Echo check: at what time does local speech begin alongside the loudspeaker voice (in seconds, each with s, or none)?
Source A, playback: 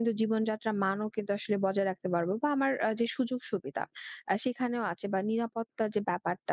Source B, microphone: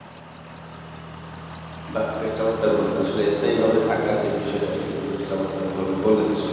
1.9 s